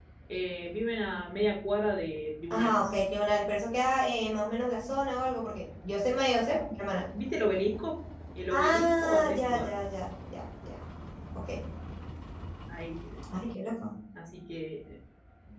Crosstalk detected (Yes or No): Yes